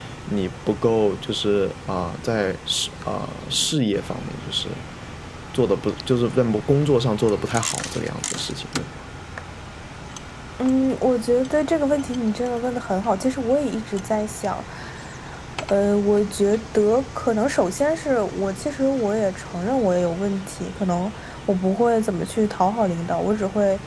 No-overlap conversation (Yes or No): Yes